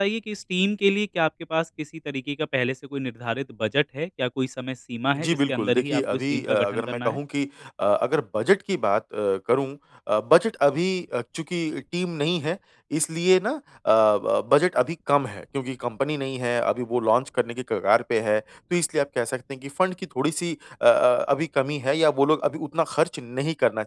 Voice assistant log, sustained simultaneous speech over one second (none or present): present